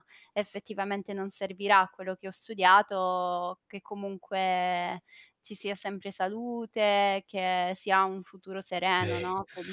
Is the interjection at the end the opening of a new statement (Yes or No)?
Yes